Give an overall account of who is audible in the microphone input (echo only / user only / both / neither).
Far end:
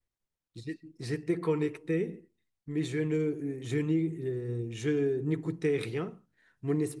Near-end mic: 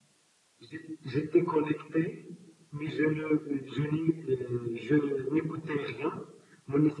echo only